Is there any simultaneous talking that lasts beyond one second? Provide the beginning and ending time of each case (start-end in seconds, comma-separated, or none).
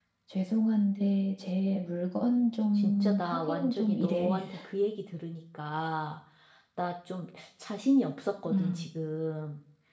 2.7-4.4